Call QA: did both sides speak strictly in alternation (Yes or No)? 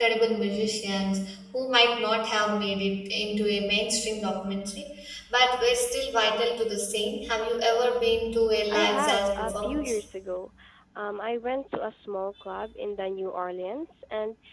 No